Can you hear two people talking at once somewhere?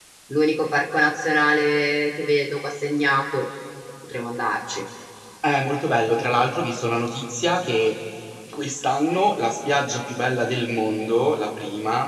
No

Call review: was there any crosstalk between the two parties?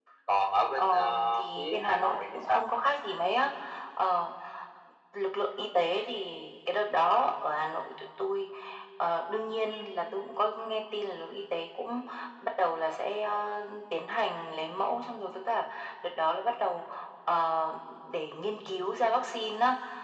Yes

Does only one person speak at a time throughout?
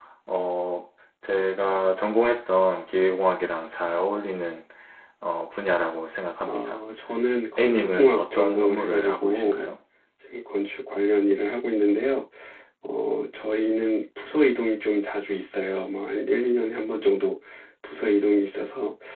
No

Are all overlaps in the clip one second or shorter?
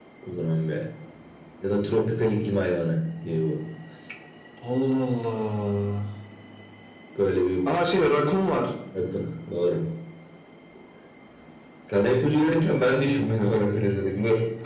Yes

